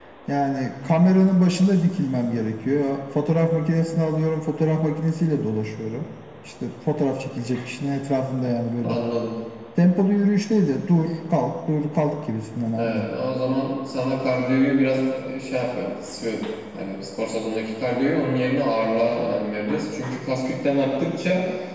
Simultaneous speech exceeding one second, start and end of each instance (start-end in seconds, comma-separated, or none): none